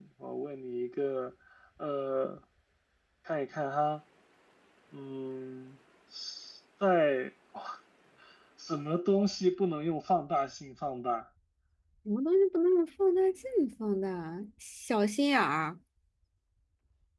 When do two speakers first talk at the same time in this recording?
none

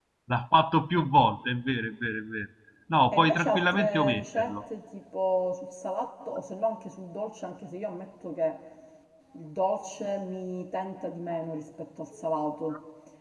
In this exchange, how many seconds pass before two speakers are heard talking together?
3.1 s

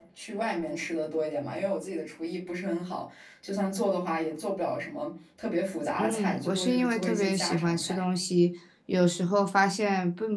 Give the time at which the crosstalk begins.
6.0 s

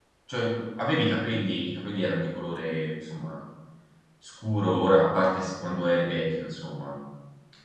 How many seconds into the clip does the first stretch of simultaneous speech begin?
none

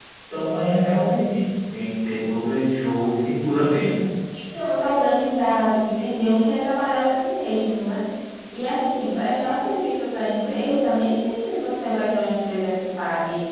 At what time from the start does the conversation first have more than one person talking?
none

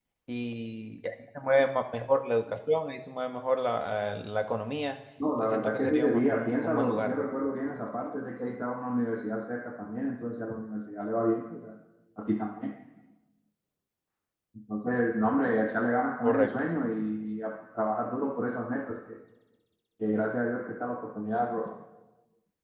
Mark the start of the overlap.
5.4 s

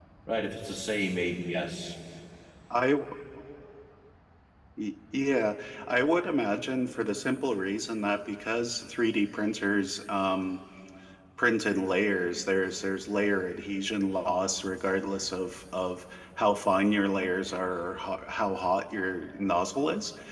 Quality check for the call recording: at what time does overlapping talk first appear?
none

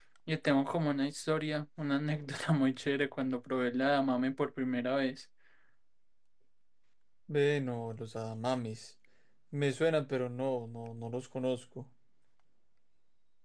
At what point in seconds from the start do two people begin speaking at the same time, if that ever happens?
none

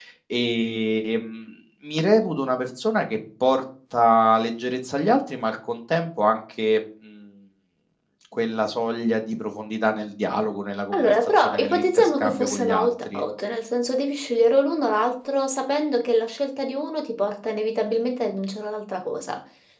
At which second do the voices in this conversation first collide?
10.9 s

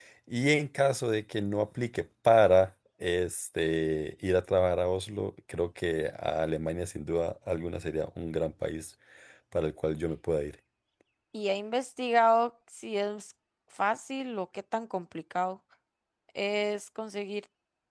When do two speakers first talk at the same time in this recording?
none

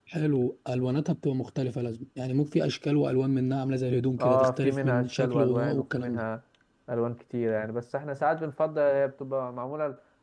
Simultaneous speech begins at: 4.2 s

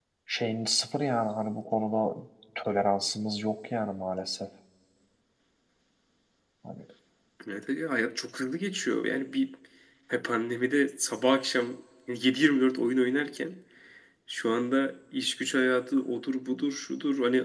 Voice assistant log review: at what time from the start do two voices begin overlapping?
none

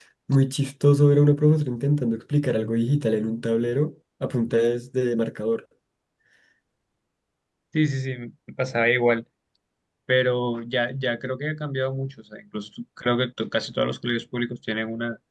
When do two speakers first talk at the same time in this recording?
none

